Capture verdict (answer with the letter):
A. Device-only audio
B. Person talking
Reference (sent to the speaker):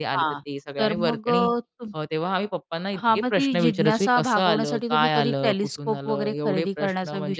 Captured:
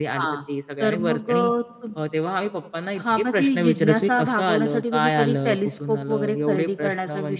A